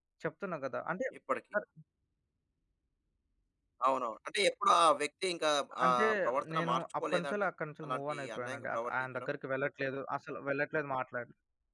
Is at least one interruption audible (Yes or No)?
Yes